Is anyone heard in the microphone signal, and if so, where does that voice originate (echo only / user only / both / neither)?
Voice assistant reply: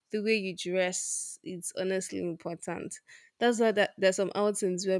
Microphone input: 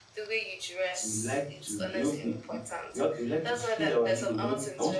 both